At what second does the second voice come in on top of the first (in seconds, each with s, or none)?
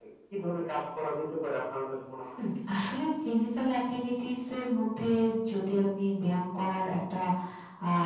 none